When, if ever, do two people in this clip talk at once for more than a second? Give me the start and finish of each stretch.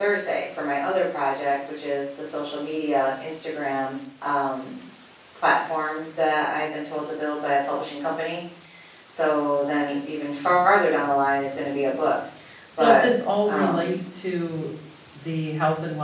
none

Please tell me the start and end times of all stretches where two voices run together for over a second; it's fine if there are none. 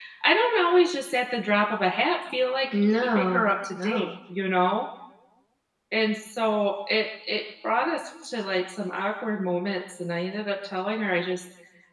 2.7-4.1

